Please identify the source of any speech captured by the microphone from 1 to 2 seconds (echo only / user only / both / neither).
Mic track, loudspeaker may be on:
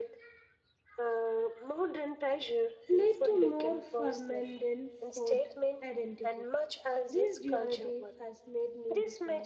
echo only